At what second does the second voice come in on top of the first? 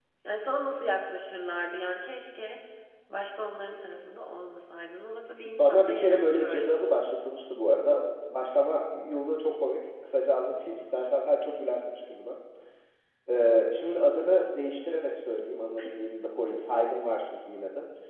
5.5 s

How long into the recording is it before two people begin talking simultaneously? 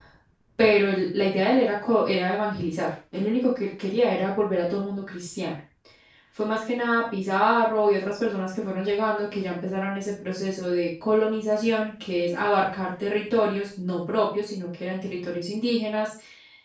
none

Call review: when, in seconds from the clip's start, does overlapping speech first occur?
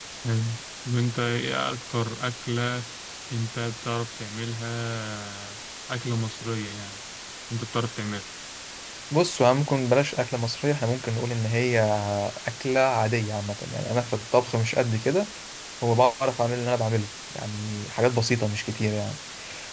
none

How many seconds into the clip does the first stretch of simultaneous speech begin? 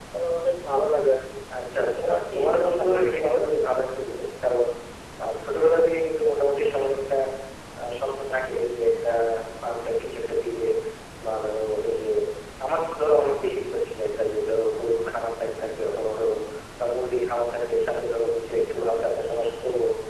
2.0 s

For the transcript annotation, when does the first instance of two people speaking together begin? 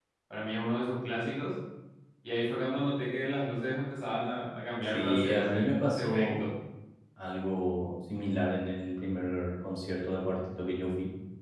4.9 s

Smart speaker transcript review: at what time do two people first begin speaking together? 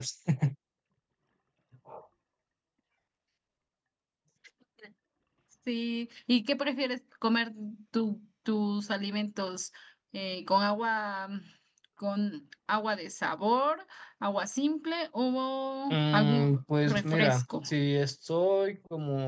15.9 s

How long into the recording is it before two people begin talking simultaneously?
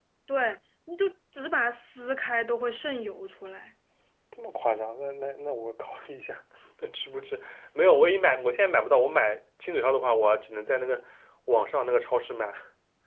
none

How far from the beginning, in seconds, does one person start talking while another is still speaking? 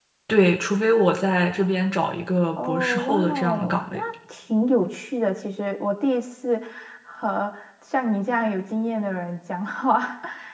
2.6 s

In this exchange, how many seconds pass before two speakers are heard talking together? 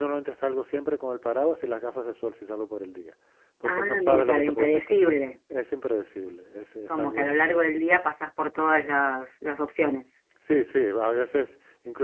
3.6 s

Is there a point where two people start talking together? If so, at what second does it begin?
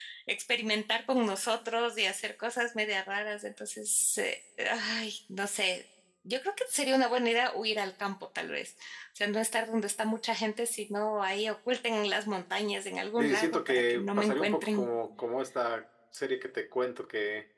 13.2 s

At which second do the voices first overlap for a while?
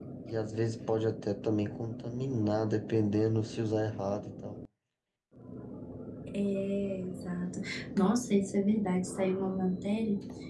none

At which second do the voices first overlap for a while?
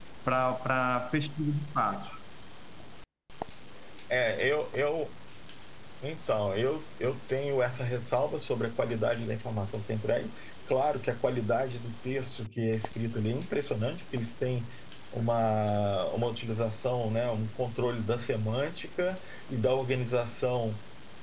none

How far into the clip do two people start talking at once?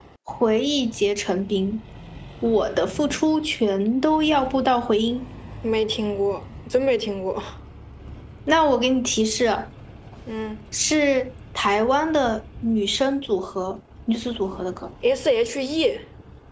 none

